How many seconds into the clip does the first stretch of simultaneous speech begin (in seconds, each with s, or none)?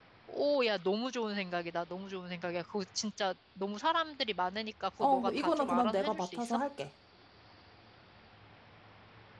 5.0 s